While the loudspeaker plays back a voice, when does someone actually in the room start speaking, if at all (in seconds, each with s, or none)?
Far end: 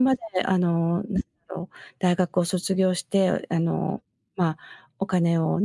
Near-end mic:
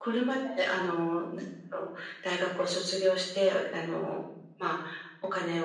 none